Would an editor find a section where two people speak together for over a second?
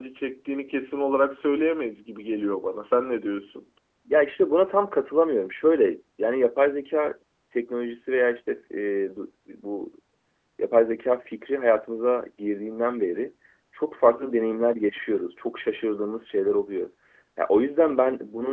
No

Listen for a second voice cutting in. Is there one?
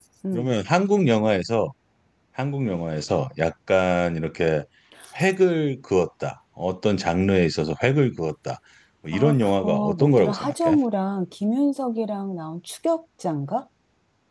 Yes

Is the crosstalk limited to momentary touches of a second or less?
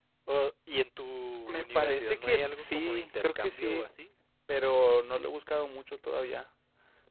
No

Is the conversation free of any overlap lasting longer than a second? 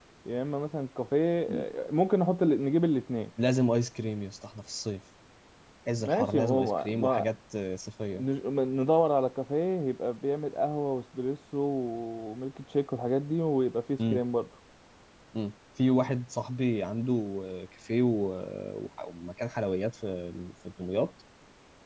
No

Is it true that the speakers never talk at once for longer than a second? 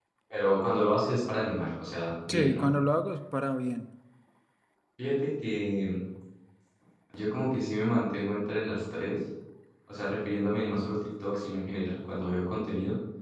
Yes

